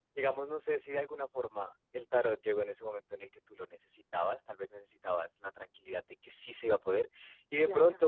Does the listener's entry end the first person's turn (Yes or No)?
No